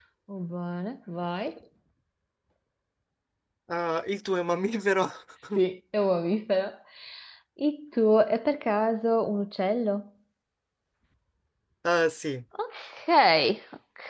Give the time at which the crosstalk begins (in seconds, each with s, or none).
none